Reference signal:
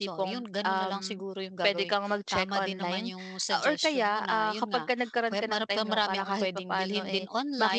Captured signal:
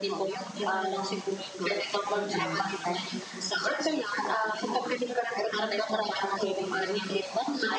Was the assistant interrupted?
Yes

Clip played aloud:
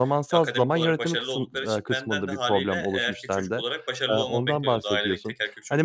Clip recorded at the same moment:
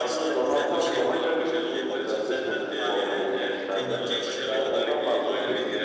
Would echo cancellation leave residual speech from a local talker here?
Yes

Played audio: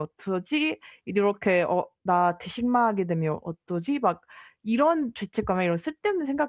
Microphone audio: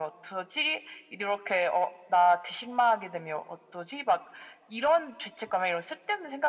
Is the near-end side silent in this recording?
Yes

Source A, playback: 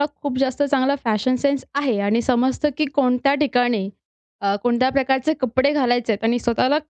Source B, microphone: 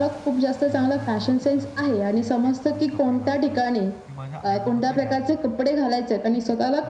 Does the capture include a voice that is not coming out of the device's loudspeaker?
Yes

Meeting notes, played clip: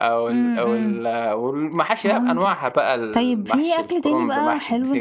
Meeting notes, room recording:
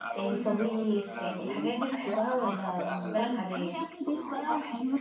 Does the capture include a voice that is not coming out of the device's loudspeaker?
Yes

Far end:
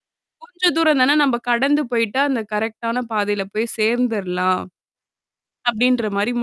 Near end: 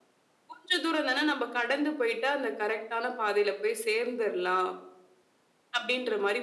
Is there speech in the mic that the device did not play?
No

